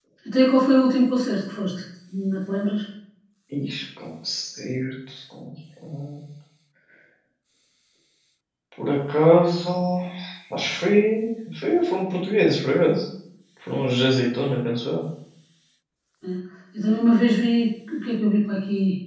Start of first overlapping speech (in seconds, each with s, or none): none